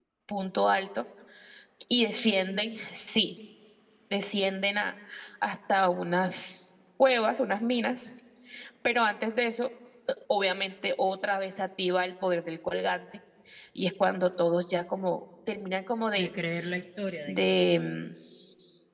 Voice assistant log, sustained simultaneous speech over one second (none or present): none